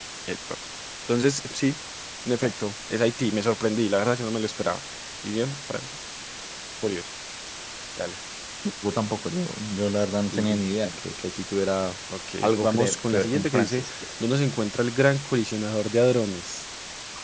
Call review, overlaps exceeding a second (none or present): present